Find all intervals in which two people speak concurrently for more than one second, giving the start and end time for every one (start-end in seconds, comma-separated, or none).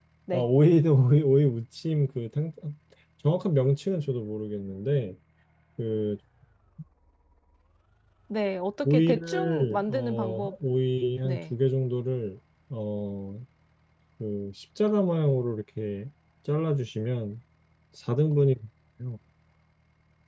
8.8-10.6